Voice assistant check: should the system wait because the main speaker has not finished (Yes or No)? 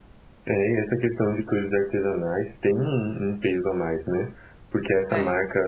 Yes